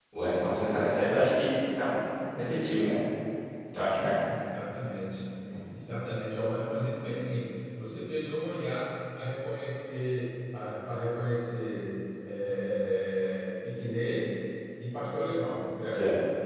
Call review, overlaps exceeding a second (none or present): none